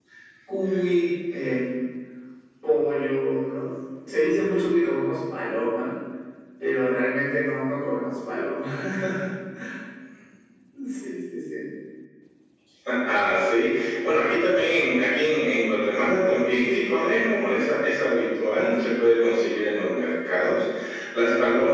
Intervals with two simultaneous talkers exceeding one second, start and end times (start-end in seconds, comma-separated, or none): none